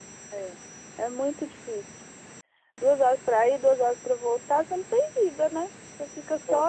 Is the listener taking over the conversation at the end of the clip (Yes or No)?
No